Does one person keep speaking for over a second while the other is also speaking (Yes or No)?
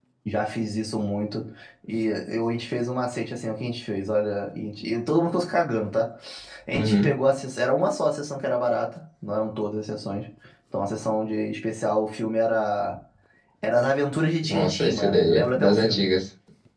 Yes